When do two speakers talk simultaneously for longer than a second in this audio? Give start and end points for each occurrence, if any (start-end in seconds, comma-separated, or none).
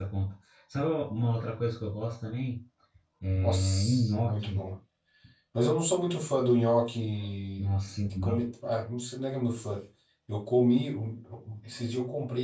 3.4-4.7